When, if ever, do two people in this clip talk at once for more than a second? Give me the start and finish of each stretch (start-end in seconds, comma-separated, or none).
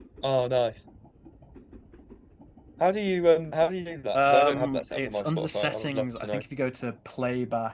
4.1-6.4